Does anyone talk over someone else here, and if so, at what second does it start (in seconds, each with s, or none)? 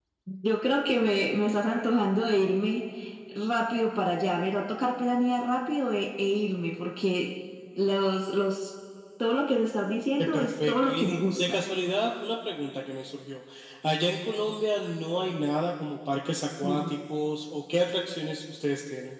10.2 s